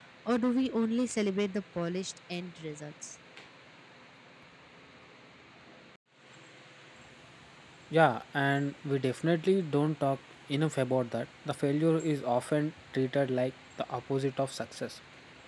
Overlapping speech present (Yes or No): No